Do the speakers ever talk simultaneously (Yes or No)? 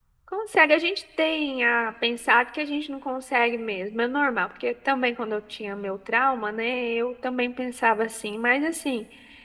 No